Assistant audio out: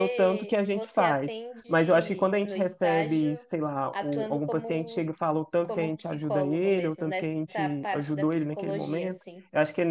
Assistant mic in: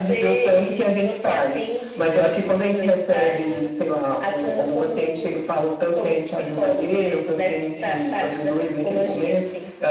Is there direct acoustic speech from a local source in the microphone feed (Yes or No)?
No